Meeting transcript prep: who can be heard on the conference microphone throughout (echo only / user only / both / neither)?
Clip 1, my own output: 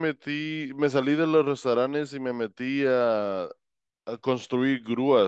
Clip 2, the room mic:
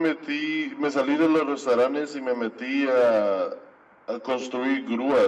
echo only